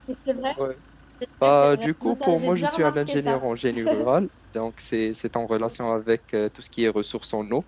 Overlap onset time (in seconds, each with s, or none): 1.4 s